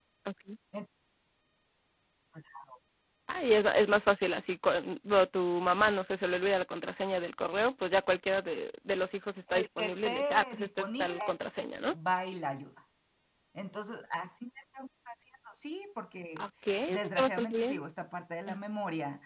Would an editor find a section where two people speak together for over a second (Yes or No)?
Yes